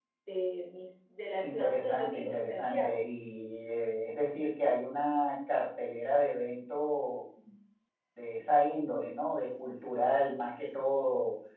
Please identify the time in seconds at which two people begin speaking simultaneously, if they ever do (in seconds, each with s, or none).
1.4 s